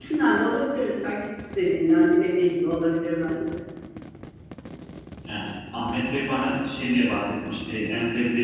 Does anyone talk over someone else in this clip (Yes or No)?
No